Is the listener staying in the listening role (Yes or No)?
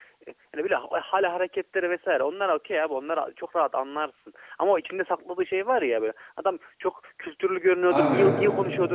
Yes